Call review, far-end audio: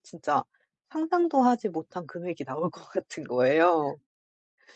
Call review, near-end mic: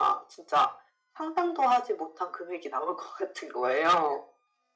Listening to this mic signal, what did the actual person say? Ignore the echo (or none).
none